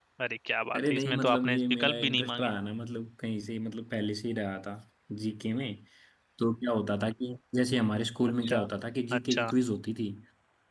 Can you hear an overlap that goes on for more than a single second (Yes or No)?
Yes